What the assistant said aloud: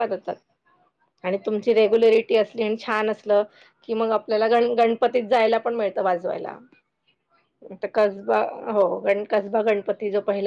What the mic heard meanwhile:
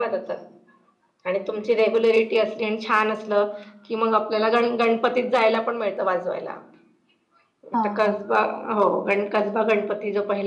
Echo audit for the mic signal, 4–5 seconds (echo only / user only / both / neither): echo only